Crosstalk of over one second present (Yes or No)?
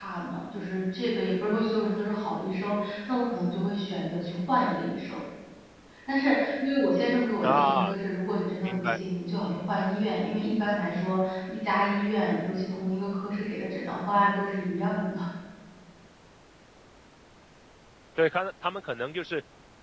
No